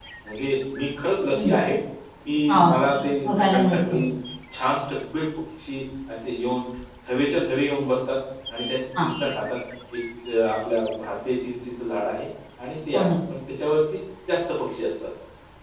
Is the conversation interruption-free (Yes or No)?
No